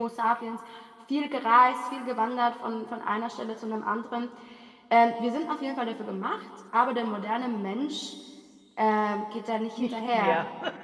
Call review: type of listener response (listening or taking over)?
listening